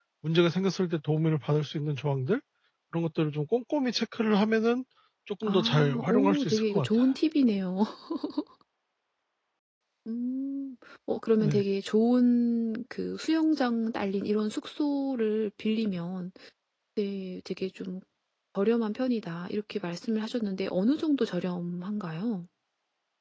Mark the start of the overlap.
5 s

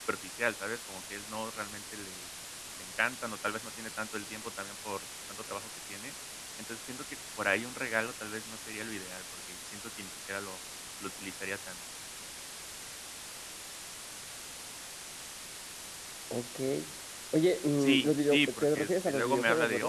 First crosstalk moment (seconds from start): 18 s

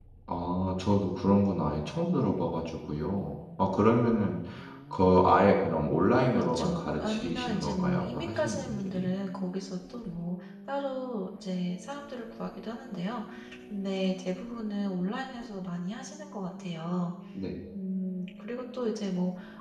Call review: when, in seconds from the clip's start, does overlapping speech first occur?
6 s

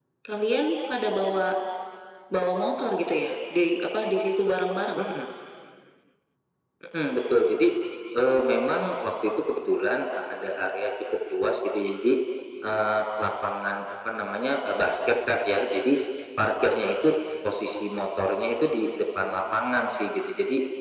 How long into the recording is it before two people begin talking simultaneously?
none

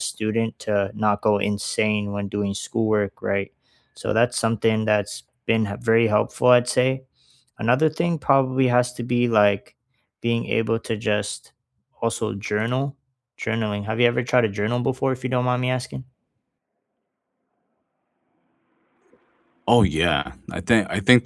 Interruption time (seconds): none

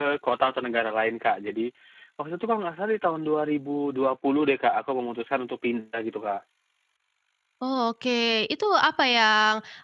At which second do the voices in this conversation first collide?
none

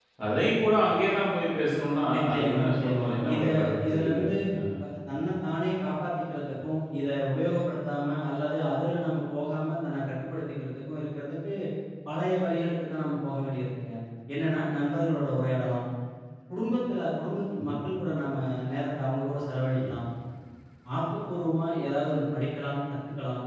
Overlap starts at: 2 s

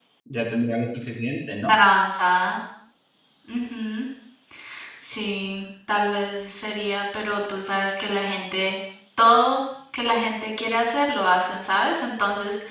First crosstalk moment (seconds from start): none

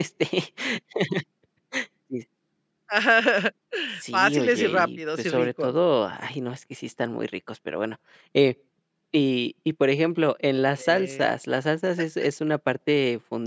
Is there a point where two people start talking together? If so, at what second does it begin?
4 s

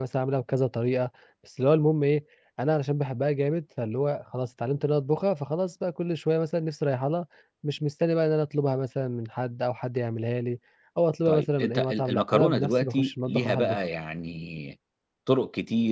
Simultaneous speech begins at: 11 s

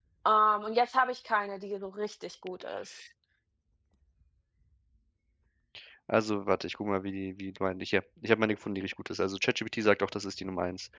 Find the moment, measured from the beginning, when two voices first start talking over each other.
none

